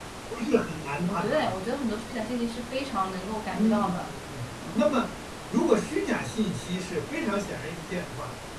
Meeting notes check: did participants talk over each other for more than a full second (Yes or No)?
No